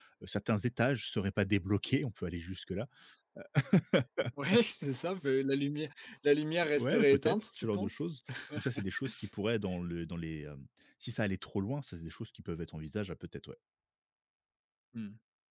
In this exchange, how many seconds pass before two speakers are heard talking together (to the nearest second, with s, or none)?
7 s